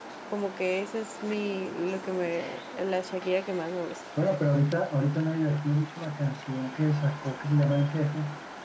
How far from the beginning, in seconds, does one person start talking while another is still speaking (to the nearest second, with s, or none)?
none